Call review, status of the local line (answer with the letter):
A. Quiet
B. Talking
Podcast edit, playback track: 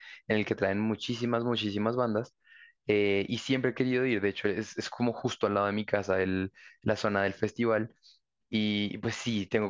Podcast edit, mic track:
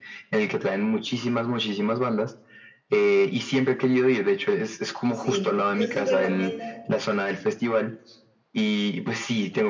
B